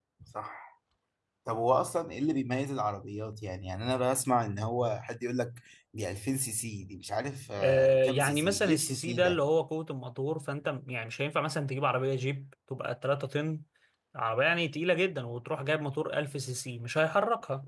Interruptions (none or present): present